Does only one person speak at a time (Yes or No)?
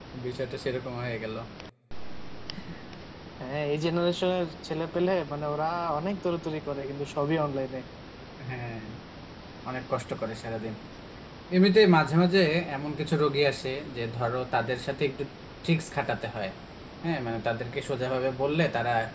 Yes